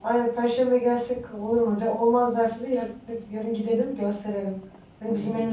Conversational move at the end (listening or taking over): listening